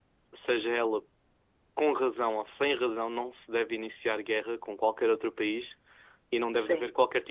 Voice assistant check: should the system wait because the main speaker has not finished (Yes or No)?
Yes